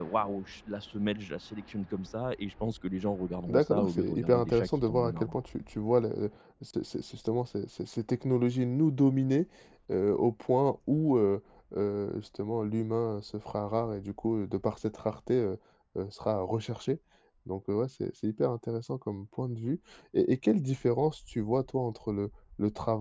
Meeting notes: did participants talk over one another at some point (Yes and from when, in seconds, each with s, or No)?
Yes, from 3.5 s